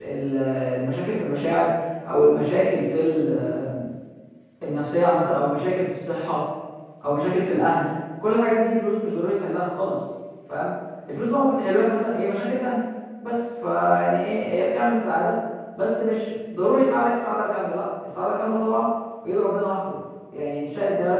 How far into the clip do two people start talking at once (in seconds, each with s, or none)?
none